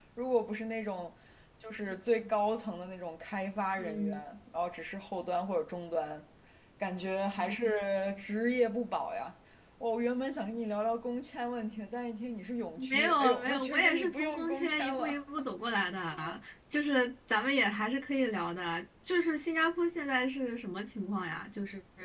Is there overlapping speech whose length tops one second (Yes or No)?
Yes